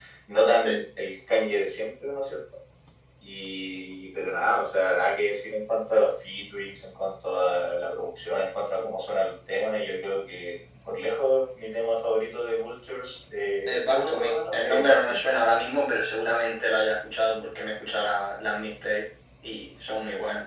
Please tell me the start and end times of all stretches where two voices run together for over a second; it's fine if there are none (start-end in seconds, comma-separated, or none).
13.7-15.3